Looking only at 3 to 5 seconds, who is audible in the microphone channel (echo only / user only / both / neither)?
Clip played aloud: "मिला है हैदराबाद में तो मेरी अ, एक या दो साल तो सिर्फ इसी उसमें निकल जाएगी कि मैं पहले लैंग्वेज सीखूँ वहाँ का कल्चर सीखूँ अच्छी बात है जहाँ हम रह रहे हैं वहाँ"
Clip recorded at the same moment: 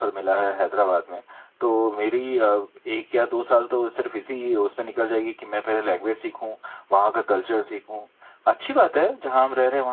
echo only